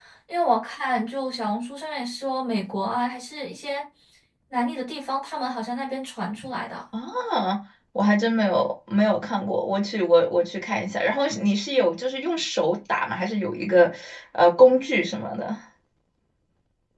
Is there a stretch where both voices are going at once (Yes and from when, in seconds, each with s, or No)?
No